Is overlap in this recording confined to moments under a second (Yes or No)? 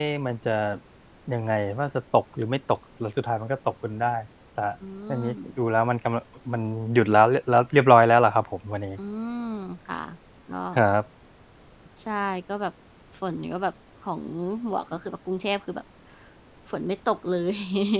Yes